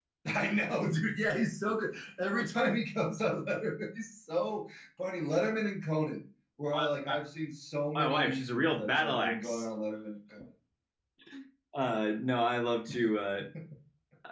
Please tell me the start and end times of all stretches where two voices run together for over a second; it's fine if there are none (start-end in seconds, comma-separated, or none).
8.0-9.7